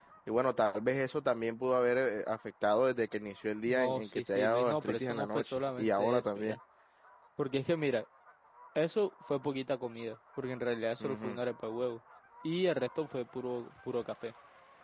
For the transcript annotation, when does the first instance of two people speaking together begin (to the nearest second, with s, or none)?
4 s